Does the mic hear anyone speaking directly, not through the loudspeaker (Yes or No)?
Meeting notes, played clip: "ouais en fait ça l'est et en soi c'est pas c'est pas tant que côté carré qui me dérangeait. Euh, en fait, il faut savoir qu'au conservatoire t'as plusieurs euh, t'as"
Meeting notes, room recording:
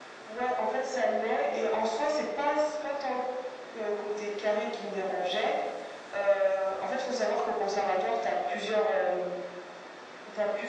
No